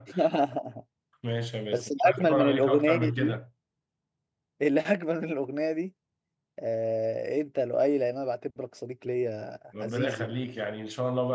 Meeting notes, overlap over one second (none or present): present